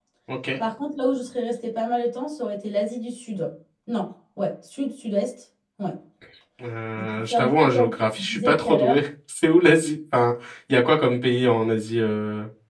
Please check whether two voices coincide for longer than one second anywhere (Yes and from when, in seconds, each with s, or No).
Yes, from 7.0 s